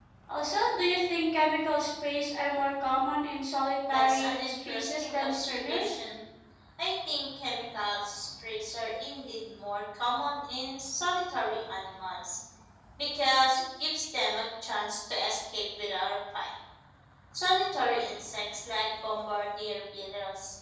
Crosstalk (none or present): present